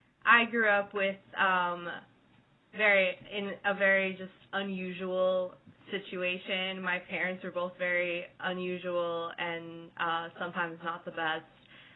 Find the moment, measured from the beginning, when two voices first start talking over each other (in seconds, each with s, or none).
none